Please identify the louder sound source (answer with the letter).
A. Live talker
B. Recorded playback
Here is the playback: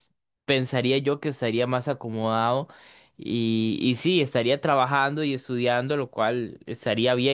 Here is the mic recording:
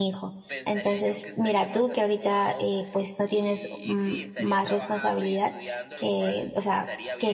A